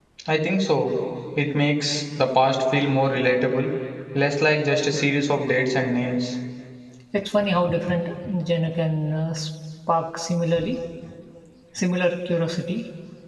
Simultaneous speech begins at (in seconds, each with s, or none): none